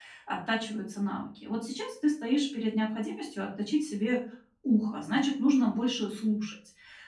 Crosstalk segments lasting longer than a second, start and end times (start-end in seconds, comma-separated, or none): none